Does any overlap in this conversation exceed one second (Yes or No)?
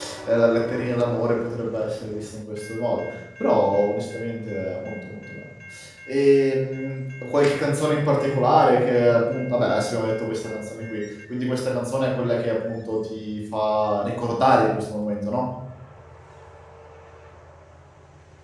No